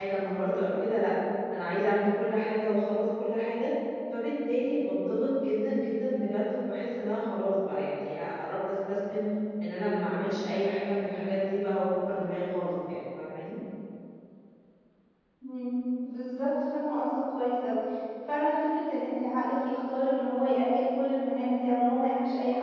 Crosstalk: none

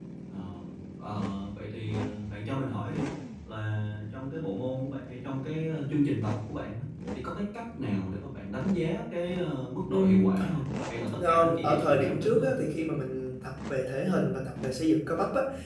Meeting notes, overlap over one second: present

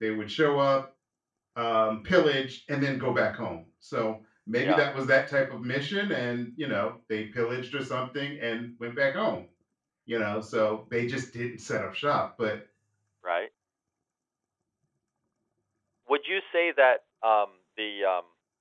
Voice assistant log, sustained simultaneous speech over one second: none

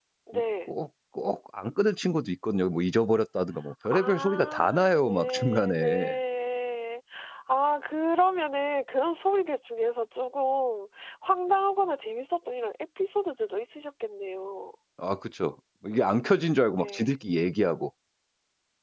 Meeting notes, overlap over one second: present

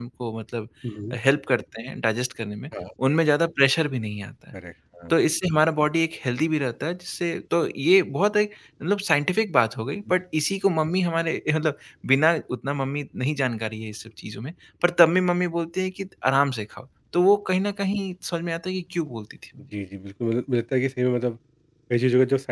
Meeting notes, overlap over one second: none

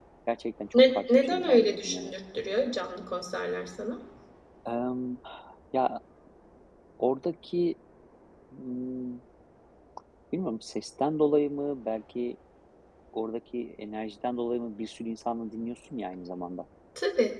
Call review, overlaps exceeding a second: present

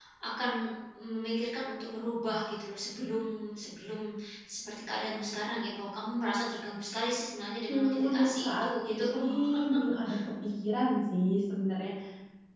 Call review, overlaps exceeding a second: present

